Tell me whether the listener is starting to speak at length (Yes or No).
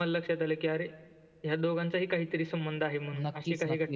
Yes